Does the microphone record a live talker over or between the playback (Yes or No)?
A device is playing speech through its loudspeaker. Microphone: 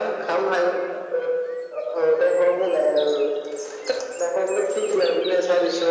No